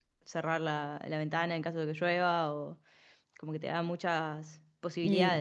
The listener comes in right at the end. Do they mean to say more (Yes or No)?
Yes